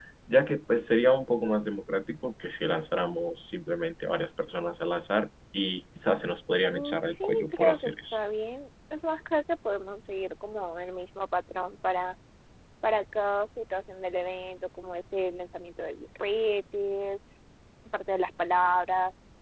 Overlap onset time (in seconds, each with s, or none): 6.7 s